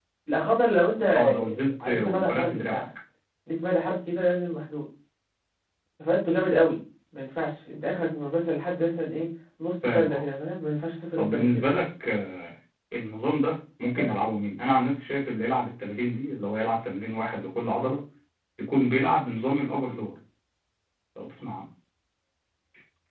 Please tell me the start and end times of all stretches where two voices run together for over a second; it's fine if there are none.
1.1-2.8

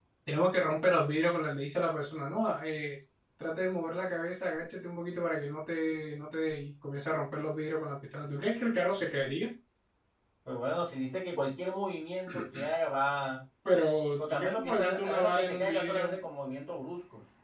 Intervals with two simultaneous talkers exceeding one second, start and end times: 14.2-16.2

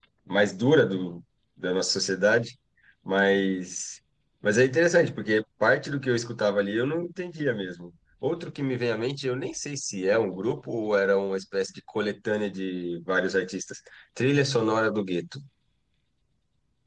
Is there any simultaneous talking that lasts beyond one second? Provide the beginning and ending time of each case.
none

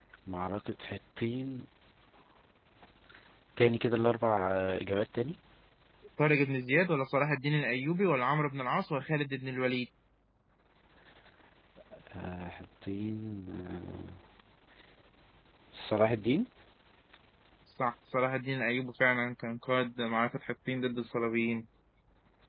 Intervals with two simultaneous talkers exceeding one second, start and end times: none

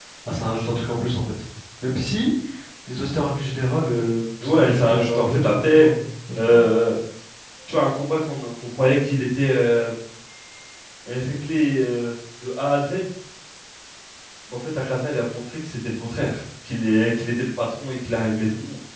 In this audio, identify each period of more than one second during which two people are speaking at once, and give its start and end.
4.4-5.9

